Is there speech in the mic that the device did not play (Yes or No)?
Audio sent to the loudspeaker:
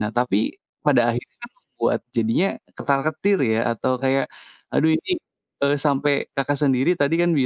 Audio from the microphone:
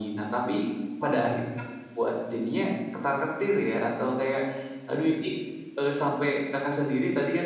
No